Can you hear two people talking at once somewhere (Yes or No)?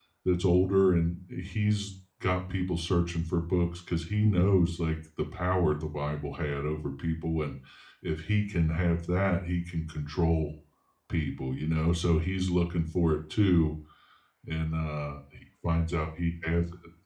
No